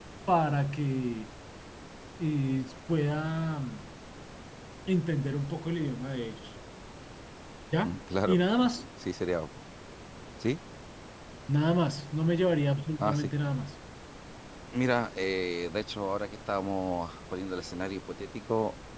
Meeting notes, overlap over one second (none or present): none